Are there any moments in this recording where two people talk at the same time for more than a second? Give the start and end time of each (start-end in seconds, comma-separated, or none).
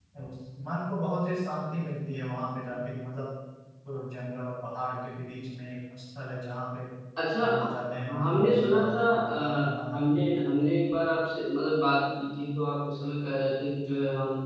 8.2-10.4